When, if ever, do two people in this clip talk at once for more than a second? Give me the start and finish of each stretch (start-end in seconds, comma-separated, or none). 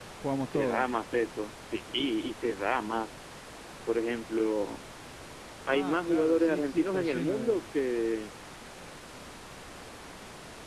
5.7-7.6